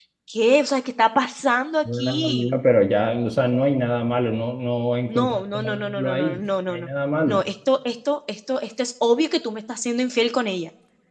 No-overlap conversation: No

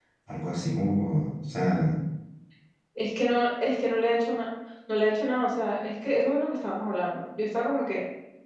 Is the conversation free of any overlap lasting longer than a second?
Yes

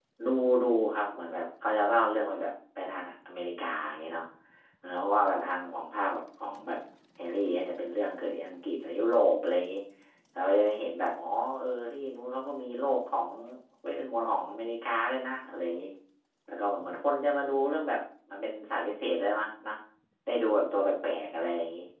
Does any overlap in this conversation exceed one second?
No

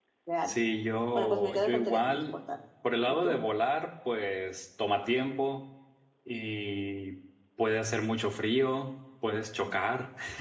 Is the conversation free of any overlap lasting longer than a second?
No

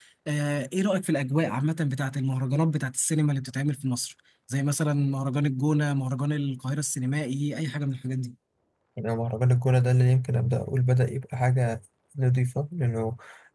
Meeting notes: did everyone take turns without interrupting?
Yes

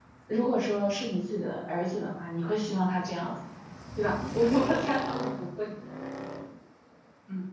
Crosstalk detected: No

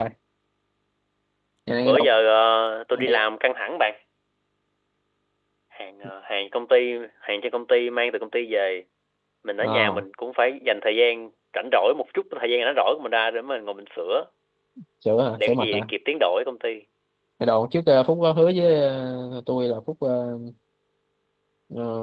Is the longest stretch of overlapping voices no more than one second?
Yes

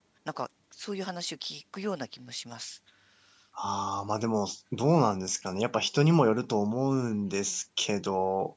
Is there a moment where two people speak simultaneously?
No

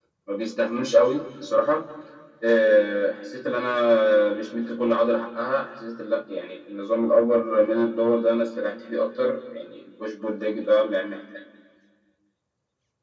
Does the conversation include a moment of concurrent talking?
No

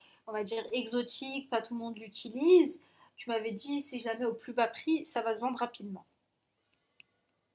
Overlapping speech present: No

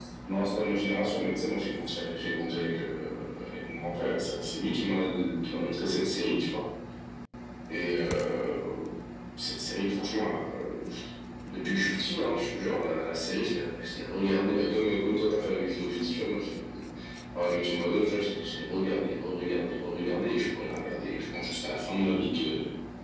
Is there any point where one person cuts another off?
No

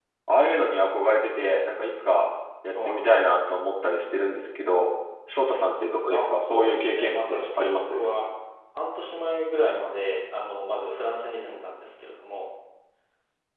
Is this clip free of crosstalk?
No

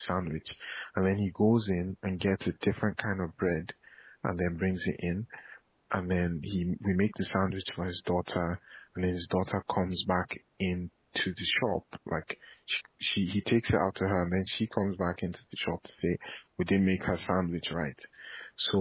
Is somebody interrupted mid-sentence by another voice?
No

